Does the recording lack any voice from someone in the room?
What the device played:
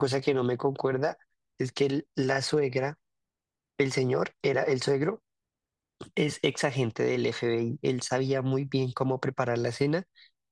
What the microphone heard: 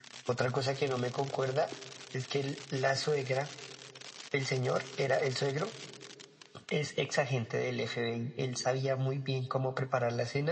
Yes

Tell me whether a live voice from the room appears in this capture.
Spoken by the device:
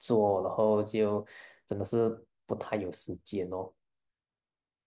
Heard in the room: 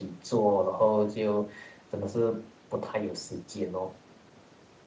No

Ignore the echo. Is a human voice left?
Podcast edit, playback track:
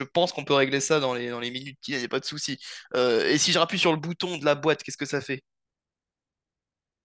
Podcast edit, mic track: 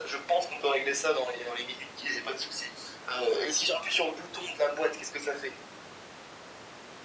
No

